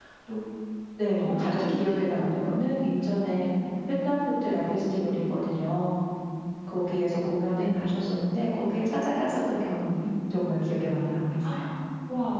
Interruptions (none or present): present